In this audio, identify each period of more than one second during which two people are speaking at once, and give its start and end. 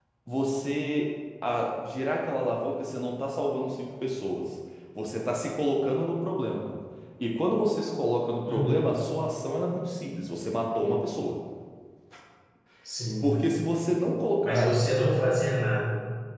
none

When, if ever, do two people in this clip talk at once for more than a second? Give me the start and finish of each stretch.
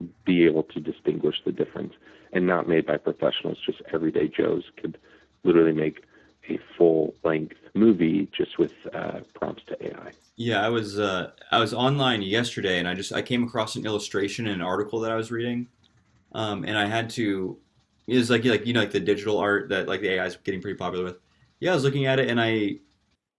none

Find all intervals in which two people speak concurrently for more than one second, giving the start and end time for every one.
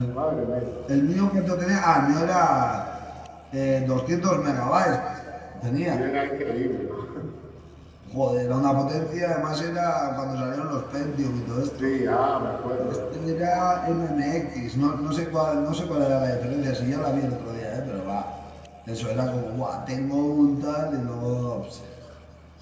none

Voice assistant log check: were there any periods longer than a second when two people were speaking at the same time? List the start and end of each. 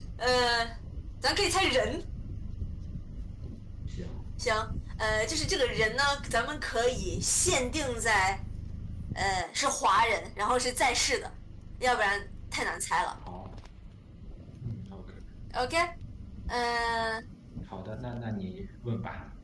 none

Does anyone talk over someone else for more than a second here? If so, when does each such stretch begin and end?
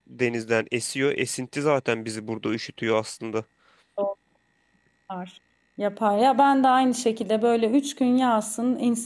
none

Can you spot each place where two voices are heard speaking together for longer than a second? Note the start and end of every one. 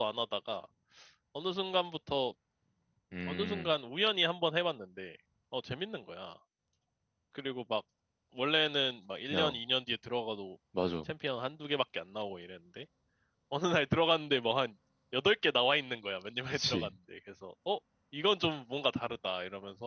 none

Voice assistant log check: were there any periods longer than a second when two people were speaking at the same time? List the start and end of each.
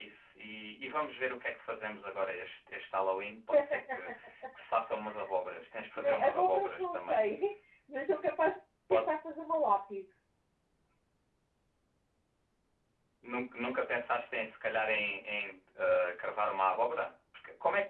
6.0-7.2

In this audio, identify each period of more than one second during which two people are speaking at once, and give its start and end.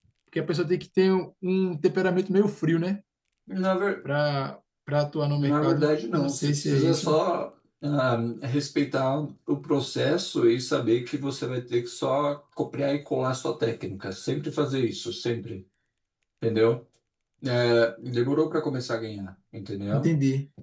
5.3-7.1

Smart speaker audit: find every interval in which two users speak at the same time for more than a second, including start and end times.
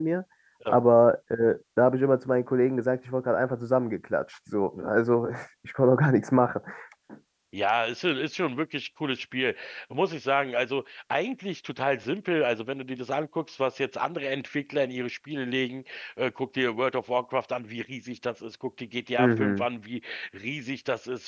none

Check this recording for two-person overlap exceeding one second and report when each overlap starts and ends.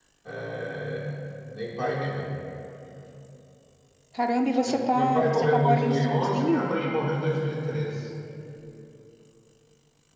4.7-6.7

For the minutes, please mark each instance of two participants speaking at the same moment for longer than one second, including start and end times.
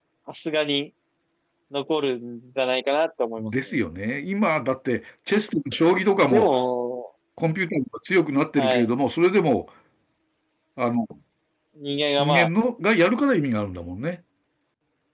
none

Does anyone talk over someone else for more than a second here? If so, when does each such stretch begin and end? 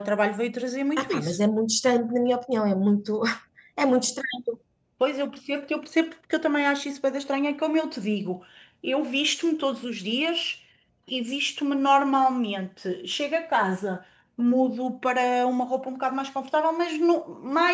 none

